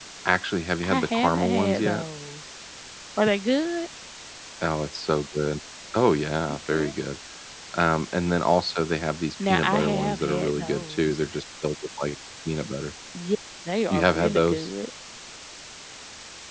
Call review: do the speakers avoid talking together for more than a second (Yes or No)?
No